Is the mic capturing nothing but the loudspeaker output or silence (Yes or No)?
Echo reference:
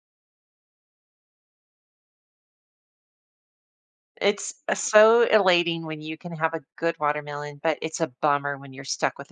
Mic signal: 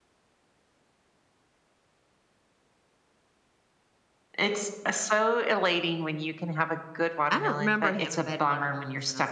No